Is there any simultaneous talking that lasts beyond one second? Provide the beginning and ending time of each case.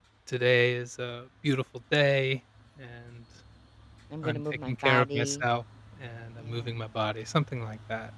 4.2-5.5

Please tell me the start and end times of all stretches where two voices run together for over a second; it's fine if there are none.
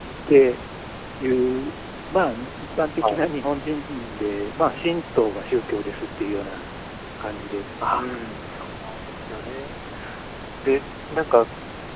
none

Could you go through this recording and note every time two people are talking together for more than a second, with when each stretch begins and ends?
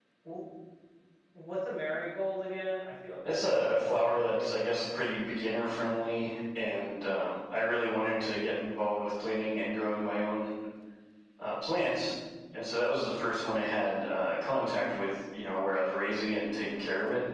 3.2-4.5

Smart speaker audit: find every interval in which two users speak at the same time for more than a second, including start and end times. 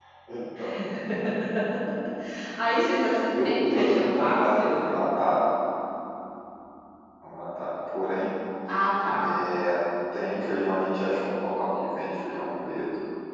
3.4-4.9

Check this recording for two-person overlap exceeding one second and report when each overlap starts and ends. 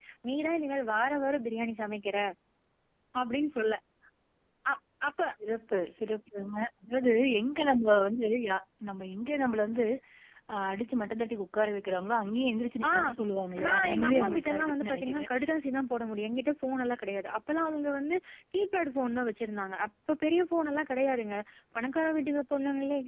13.6-15.3

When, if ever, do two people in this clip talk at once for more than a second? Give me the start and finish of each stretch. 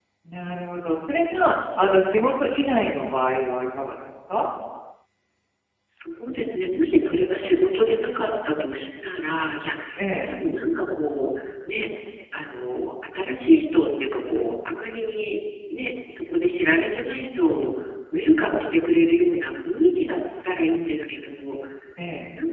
none

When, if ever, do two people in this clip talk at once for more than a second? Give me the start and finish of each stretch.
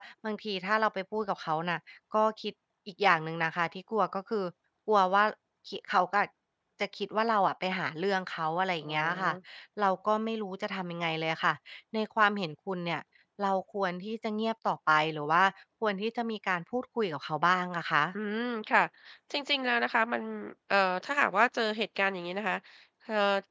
none

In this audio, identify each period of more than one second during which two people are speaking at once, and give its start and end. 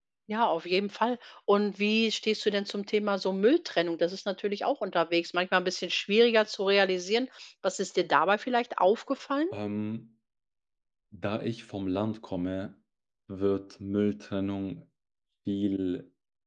none

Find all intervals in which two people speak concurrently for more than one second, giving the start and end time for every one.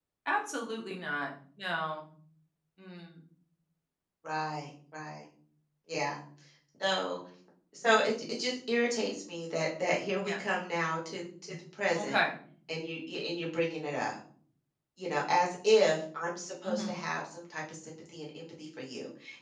none

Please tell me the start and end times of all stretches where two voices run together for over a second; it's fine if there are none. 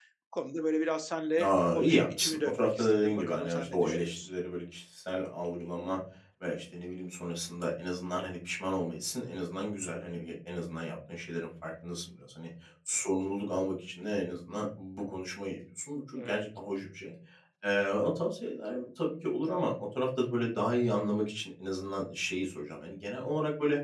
1.4-4.3

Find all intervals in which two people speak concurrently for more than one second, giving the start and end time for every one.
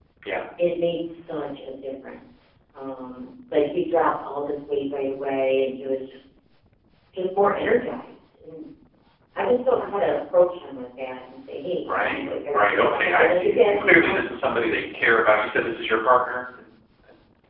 11.8-14.2

